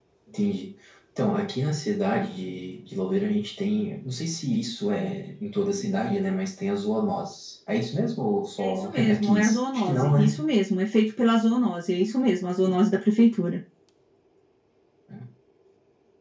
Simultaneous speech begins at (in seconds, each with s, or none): 8.6 s